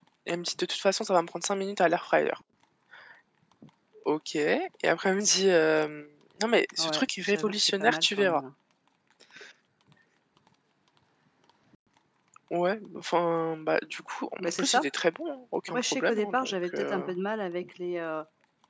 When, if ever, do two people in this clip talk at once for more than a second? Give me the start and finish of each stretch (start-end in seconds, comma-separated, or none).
6.8-8.4, 15.7-17.0